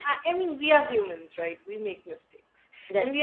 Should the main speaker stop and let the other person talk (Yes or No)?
No